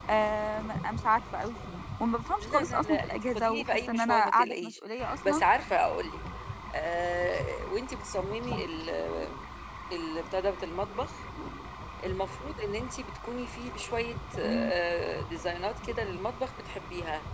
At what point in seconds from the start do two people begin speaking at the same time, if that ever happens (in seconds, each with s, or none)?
2.4 s